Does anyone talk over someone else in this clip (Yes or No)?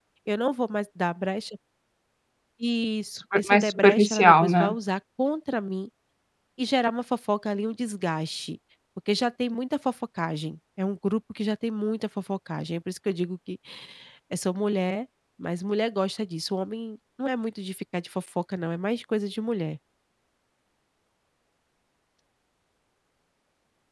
Yes